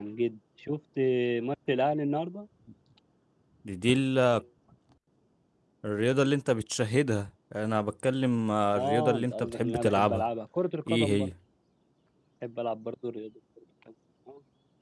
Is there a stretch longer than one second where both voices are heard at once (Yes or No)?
Yes